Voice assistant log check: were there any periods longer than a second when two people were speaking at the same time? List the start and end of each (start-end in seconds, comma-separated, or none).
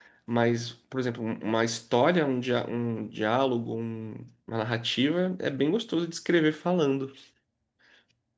none